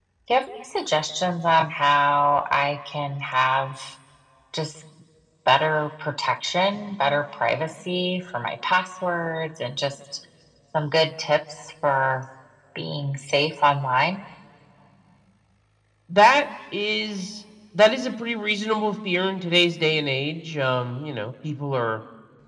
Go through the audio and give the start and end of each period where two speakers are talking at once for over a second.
none

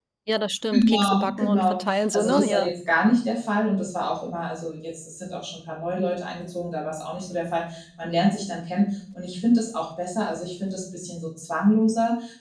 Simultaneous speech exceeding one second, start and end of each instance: 0.7-2.6

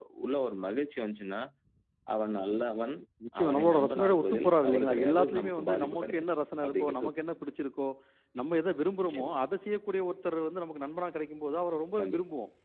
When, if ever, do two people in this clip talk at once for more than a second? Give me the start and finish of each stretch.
3.4-6.3

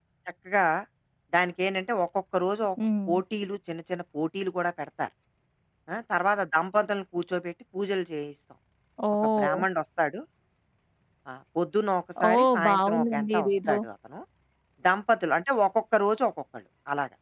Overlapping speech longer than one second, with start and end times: 12.3-13.8

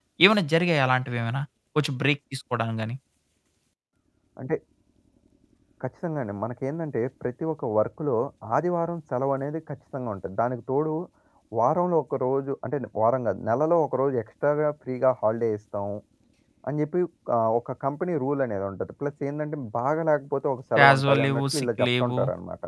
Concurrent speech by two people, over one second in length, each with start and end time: 20.8-22.2

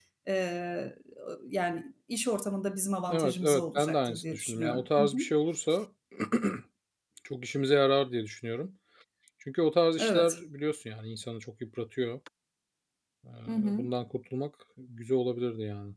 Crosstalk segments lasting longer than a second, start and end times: 3.1-5.2

